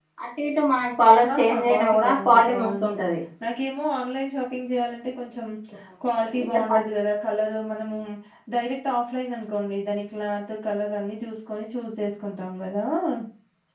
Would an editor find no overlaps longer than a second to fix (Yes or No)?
No